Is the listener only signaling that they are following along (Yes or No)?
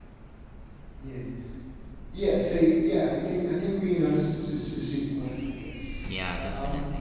Yes